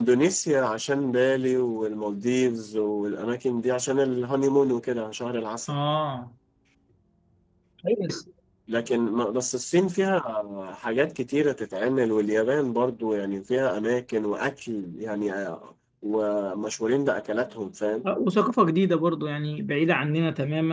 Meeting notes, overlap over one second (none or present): none